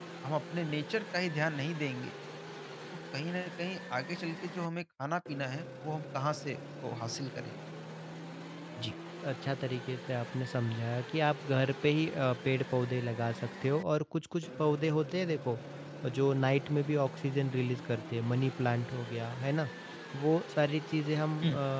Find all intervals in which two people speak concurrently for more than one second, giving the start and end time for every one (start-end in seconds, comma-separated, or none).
none